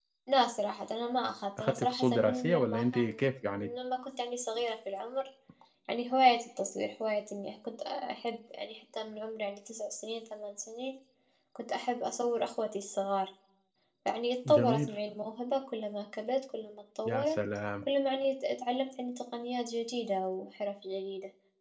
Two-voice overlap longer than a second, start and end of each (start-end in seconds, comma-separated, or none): 1.6-3.0